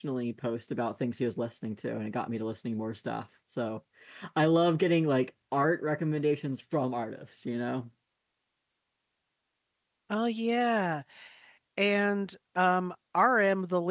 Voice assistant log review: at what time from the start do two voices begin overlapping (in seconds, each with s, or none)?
none